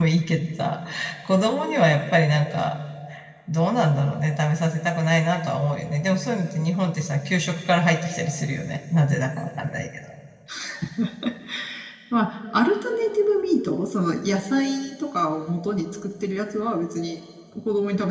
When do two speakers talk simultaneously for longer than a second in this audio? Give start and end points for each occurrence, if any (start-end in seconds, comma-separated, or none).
none